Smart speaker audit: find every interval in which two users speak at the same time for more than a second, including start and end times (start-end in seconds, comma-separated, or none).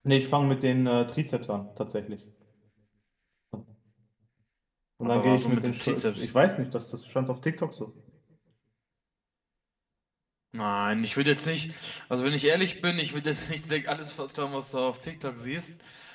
5.0-6.3